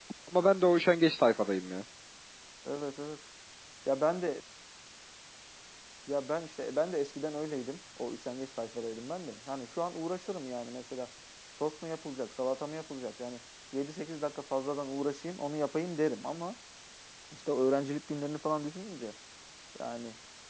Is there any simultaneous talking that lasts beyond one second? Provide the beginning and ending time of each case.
none

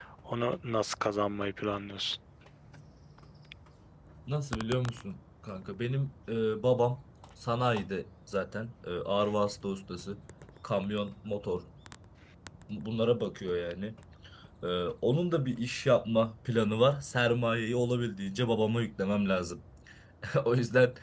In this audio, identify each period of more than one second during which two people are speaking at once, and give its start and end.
none

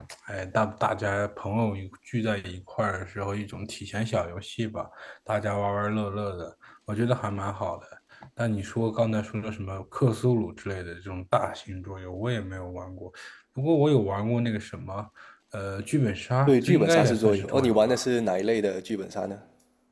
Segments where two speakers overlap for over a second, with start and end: 16.5-18.0

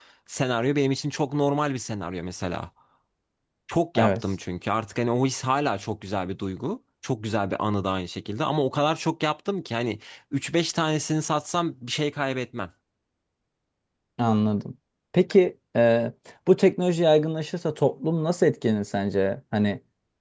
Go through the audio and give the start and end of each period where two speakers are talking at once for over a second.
none

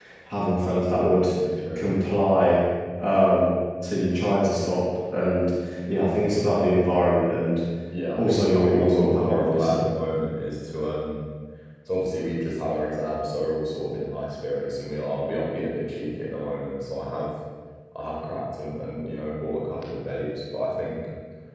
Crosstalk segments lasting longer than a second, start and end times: 8.2-9.8

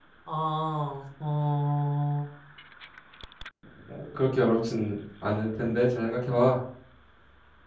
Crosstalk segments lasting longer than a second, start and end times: none

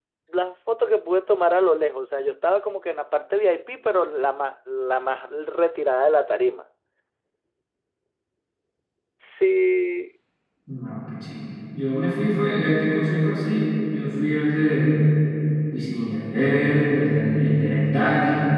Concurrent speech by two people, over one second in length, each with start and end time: none

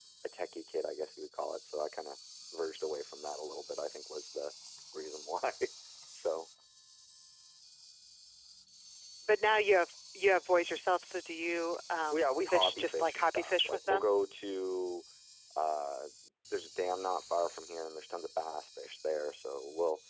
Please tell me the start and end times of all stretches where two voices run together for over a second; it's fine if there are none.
12.1-14.1

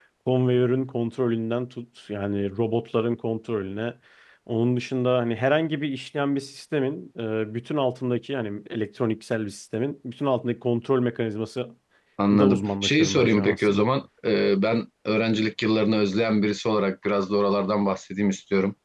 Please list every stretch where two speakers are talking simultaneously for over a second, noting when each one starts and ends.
12.3-13.9

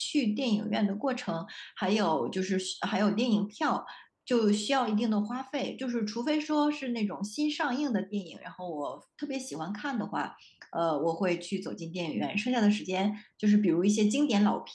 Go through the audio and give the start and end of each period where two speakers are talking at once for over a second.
none

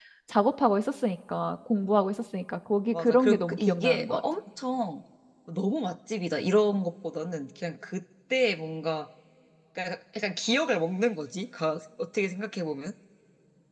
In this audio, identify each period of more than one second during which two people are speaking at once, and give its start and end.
2.9-4.2

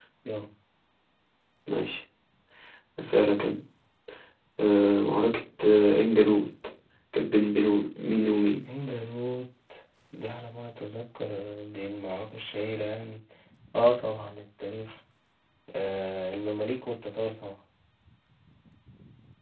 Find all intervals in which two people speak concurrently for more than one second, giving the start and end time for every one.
none

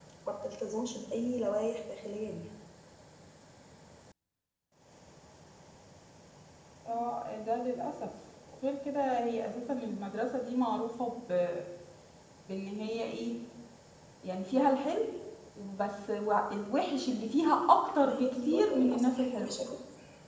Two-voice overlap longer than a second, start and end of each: 18.0-19.5

